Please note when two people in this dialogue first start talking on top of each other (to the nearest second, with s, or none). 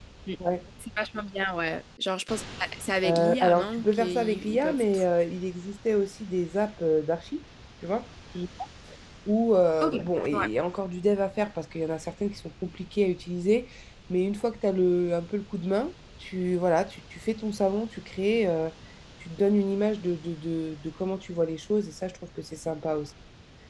3 s